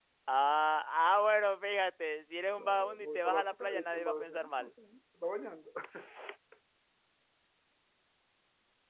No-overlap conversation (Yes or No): No